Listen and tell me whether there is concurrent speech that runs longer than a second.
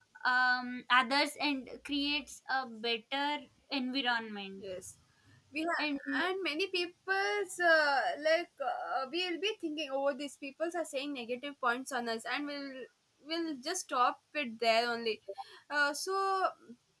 No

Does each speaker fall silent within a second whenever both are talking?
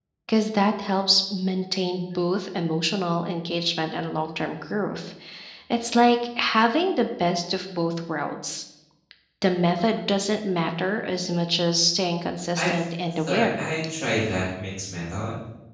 Yes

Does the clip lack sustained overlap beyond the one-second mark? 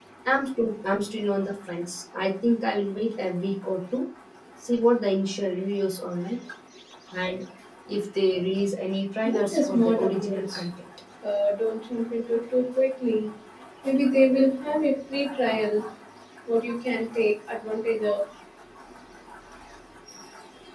No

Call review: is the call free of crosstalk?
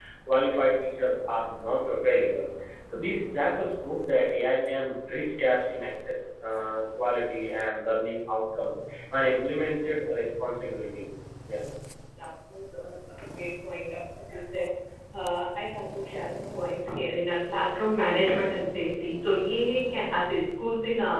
Yes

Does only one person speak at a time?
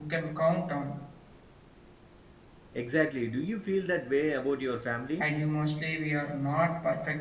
Yes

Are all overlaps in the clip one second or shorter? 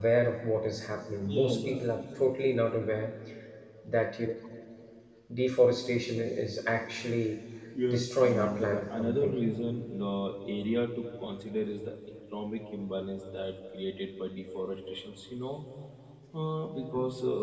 No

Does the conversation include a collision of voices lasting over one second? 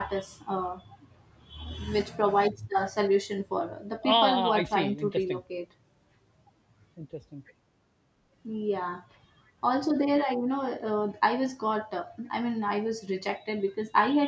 Yes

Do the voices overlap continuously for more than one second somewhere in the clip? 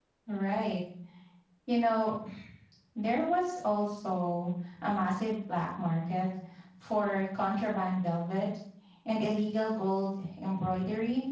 No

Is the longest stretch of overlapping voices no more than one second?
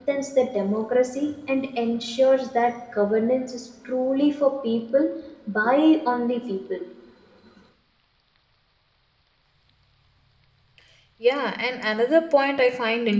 Yes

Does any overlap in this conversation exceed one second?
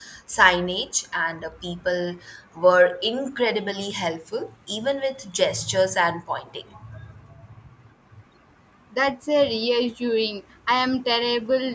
No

